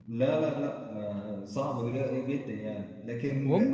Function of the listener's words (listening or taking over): listening